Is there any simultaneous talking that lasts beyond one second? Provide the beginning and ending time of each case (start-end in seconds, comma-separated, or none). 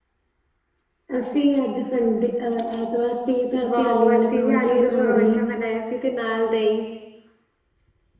3.7-5.4